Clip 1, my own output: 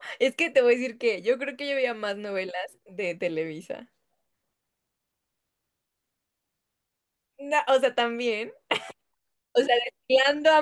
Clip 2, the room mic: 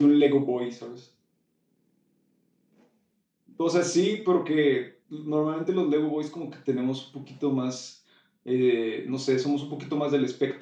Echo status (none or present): none